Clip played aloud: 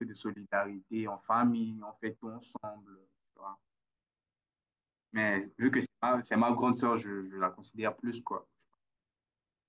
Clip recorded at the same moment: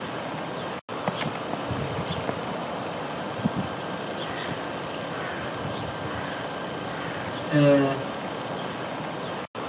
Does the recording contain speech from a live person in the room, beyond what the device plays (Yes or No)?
Yes